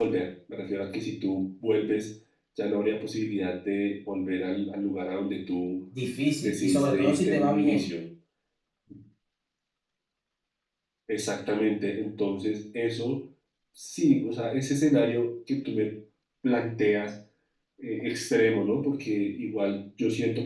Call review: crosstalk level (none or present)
present